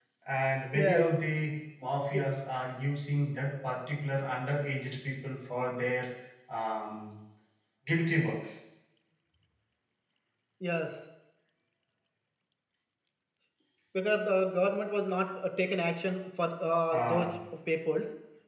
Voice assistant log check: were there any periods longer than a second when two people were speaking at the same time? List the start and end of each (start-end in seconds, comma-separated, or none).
none